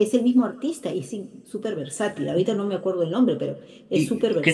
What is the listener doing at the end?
taking over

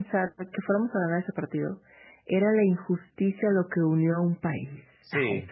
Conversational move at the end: taking over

